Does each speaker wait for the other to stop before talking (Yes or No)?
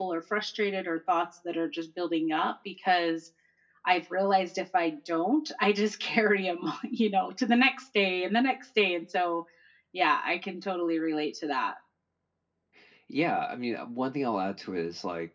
Yes